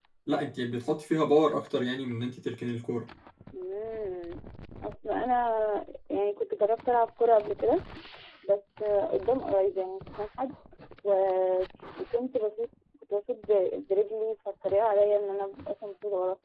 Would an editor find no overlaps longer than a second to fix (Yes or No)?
Yes